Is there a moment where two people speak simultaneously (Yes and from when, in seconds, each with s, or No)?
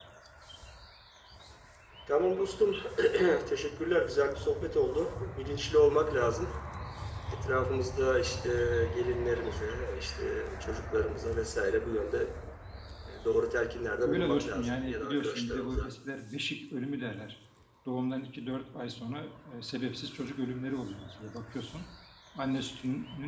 Yes, from 14.0 s